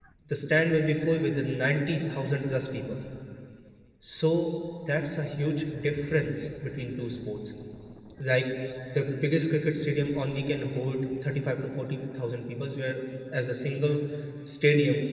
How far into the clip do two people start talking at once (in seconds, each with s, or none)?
none